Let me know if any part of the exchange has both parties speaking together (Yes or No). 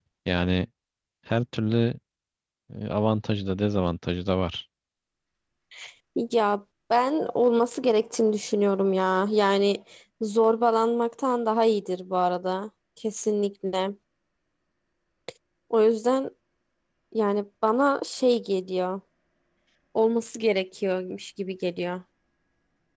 No